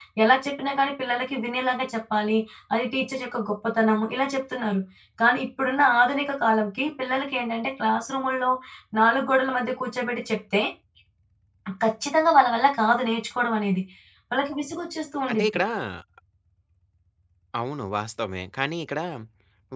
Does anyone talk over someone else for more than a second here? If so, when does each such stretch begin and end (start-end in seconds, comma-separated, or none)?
none